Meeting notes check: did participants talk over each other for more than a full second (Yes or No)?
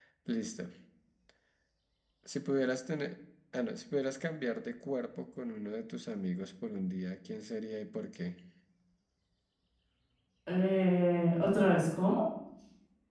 No